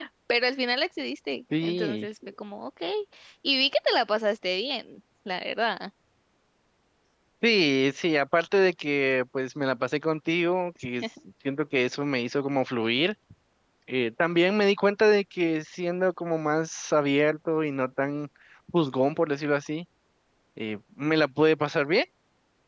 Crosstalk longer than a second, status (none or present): none